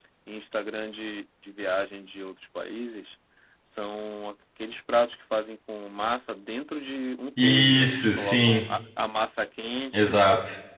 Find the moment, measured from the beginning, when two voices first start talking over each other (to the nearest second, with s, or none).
7 s